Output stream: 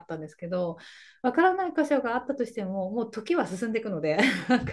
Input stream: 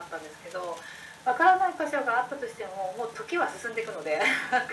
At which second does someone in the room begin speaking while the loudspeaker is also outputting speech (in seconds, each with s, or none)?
none